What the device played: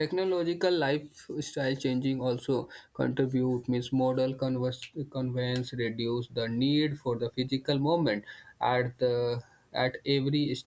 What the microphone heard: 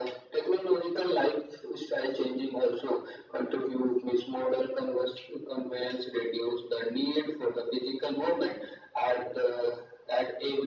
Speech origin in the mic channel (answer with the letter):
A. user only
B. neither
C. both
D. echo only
D